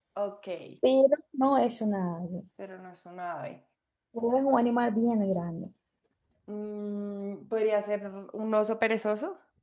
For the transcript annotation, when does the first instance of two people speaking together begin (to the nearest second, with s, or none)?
none